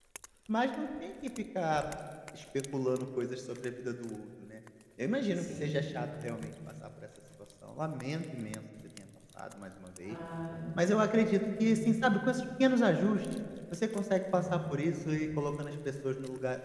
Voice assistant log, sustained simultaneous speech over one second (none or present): none